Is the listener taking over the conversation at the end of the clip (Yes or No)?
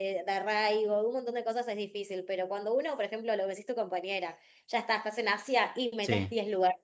No